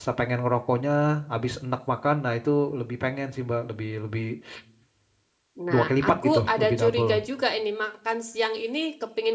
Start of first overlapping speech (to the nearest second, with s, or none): 6 s